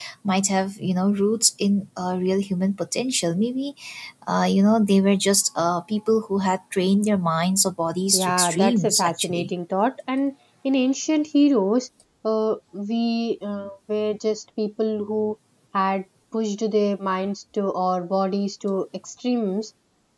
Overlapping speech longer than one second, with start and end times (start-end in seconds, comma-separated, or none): 8.1-9.5